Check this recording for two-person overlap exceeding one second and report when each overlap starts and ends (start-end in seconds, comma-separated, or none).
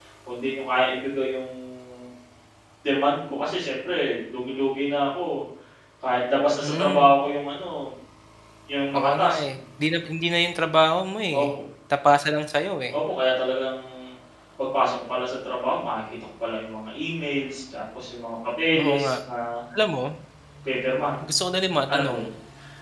none